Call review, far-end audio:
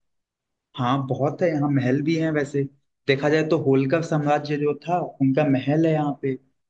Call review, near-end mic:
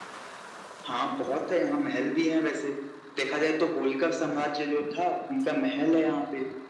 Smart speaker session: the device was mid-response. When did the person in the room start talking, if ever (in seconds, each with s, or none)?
none